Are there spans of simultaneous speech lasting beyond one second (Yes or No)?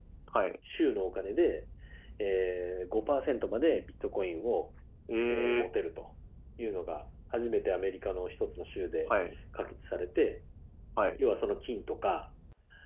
No